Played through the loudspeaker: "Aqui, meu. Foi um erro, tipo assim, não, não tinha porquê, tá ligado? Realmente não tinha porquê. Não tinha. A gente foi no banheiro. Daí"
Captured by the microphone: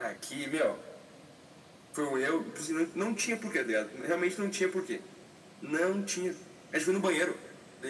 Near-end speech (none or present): none